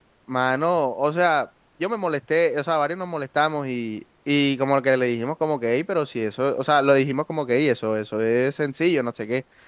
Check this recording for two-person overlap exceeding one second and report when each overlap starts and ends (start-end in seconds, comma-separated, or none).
none